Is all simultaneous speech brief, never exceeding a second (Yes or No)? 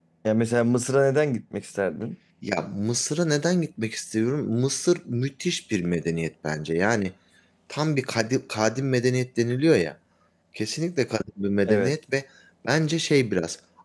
Yes